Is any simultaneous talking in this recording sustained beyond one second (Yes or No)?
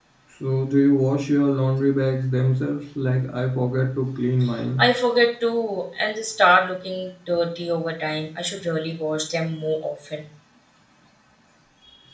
No